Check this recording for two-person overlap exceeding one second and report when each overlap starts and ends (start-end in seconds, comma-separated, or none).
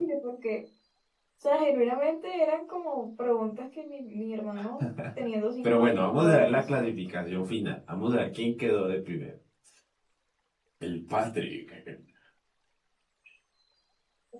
5.6-6.9